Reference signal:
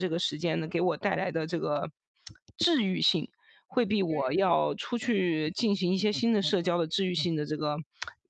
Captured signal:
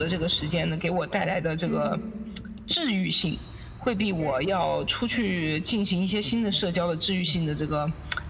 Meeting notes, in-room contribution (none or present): present